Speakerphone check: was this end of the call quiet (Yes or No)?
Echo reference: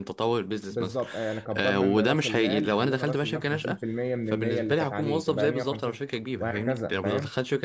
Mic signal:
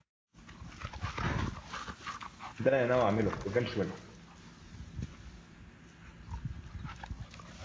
No